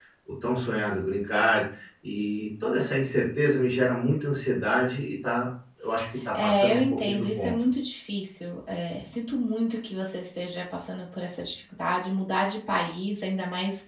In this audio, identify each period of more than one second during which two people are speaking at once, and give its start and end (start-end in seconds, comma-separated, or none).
6.3-7.6